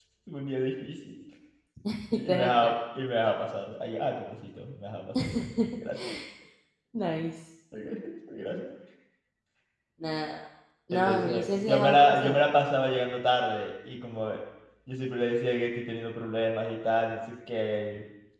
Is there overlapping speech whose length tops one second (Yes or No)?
Yes